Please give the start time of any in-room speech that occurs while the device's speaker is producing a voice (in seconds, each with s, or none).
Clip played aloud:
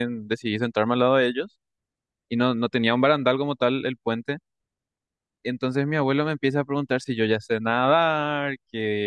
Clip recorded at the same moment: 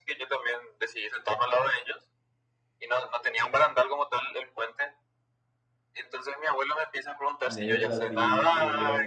7.4 s